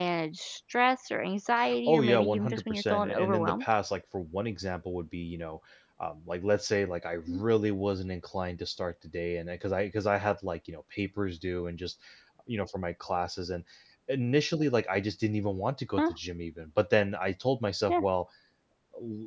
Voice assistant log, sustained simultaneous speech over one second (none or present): present